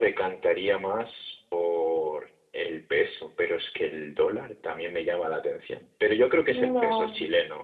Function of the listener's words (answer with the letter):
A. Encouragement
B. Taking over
B